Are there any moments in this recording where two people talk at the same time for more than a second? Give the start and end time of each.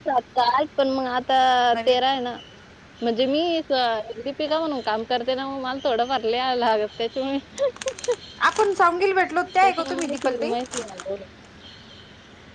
9.6-10.9

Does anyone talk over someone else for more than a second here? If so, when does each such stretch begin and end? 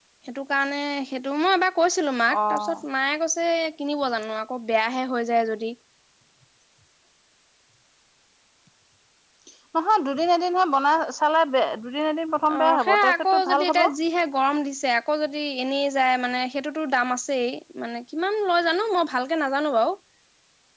12.5-13.8

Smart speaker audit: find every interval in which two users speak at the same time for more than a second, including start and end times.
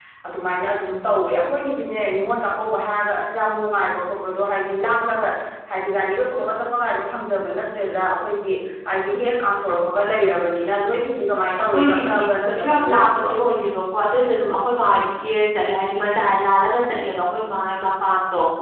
11.6-13.3

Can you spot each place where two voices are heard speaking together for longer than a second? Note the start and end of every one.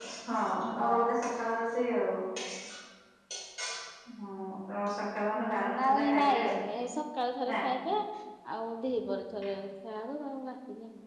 5.3-6.6

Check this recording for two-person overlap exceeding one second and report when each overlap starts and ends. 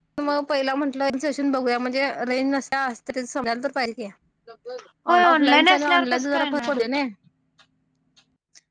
5.2-6.7

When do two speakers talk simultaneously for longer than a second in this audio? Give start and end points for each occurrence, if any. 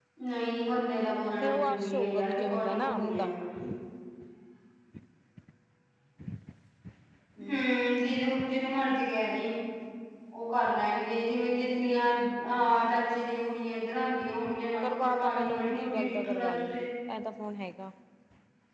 1.4-3.3, 14.8-16.9

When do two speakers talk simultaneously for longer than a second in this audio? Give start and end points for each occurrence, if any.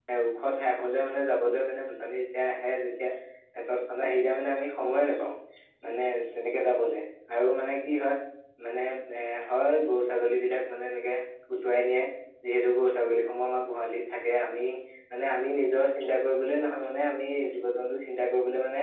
none

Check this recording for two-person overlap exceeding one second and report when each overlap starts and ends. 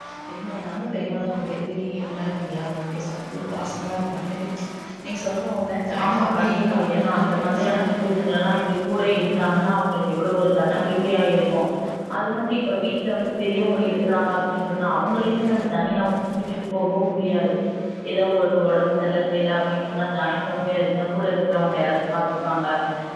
6.0-7.9

